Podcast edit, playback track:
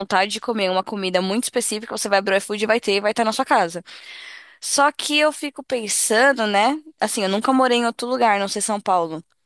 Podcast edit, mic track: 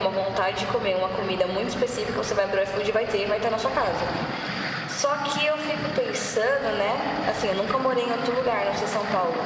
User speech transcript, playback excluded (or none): none